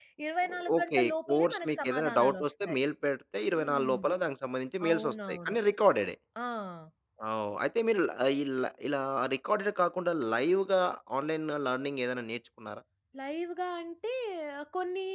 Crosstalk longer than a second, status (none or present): present